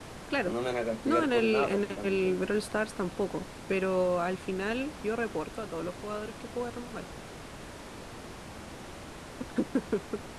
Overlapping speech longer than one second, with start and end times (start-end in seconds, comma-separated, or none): 1.1-2.4